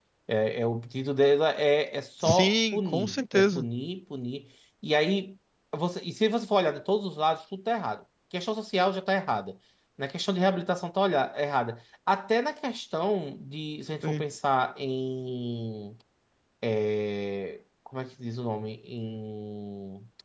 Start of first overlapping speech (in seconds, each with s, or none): 2.2 s